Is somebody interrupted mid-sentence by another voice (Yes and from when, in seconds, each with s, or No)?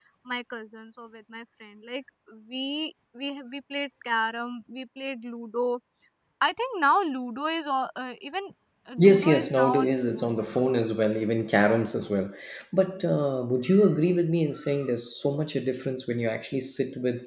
Yes, from 9.0 s